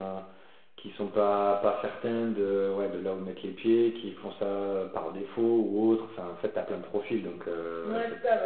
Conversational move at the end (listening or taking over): taking over